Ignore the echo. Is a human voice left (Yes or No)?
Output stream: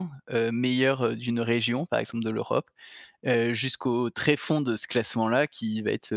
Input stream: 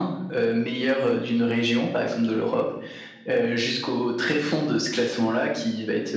No